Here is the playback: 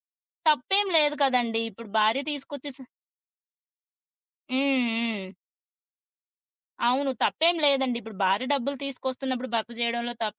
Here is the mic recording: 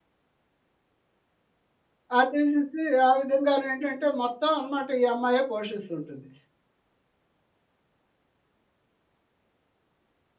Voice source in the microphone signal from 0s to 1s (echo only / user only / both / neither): neither